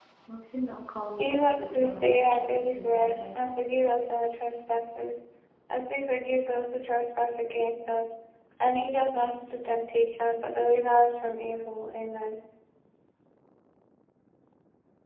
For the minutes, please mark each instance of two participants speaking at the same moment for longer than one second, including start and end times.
1.2-3.7

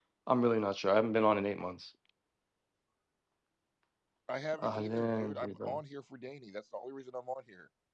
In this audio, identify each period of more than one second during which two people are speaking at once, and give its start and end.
4.6-5.8

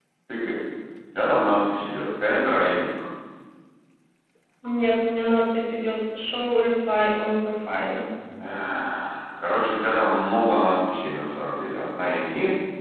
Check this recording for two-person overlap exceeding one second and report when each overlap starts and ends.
none

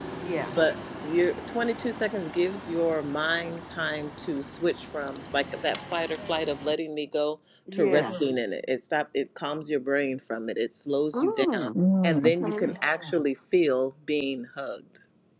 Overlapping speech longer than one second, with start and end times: 11.1-12.6

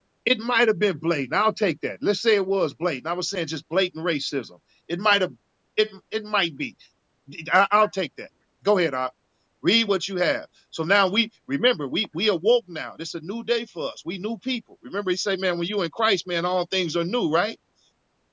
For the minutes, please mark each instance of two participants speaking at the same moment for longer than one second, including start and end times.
none

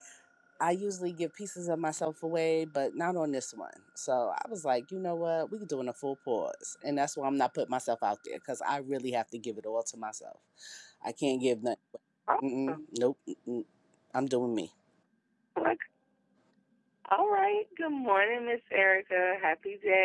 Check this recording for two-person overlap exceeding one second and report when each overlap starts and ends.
none

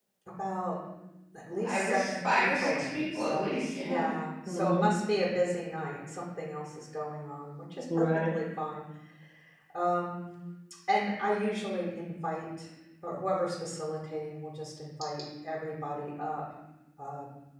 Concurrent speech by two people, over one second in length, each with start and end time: 1.6-4.1

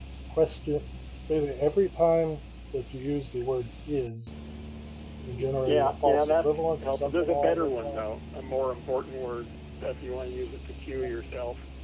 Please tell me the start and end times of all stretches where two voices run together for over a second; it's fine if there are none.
5.7-8.0

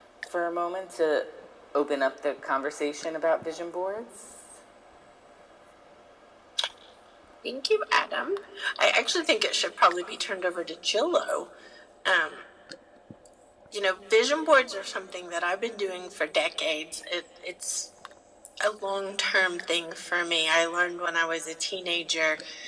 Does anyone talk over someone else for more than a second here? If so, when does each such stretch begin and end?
none

